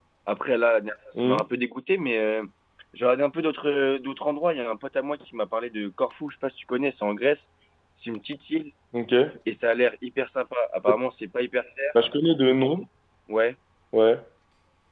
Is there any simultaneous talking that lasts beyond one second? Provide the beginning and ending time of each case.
none

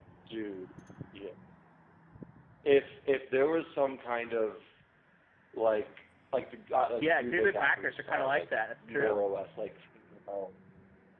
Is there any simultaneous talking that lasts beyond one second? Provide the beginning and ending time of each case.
7.0-8.5

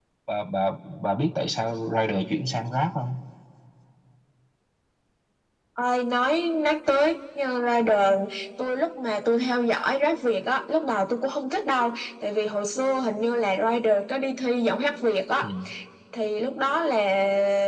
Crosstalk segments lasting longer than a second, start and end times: none

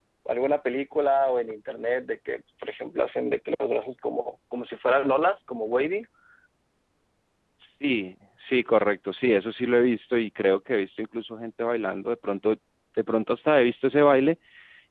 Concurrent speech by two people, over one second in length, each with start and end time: none

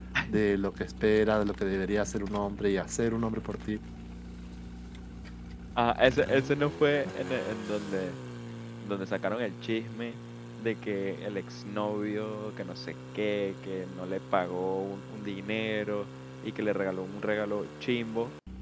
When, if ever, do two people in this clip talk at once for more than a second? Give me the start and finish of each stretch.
none

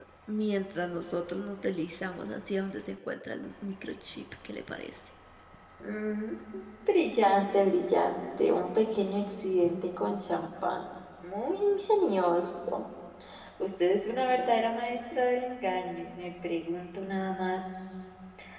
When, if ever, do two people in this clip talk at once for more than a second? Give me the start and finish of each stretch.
none

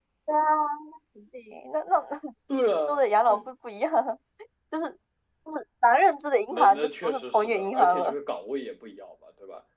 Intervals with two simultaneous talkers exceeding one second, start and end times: 6.5-8.1

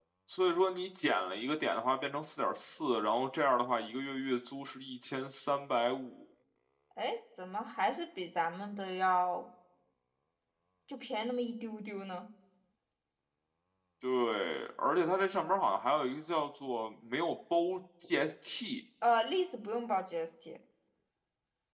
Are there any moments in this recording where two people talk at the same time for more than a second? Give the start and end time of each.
none

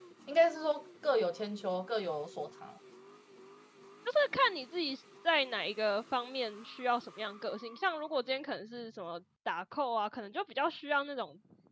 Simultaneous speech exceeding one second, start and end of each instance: none

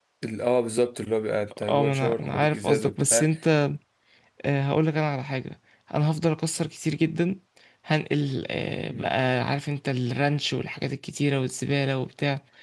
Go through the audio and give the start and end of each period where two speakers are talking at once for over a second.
1.7-3.3

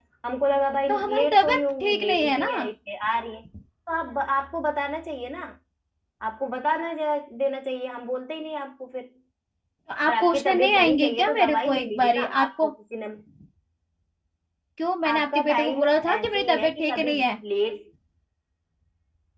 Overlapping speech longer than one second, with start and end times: 0.9-2.5, 10.1-12.7, 15.1-17.1

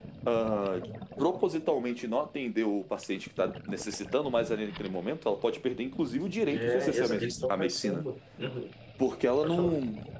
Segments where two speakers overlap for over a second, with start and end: 6.5-8.0

